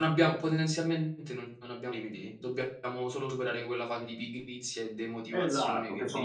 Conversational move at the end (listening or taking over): taking over